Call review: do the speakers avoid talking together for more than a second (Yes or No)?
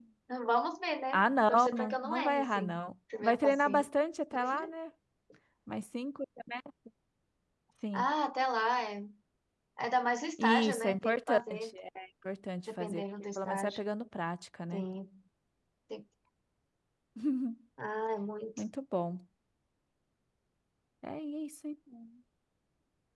No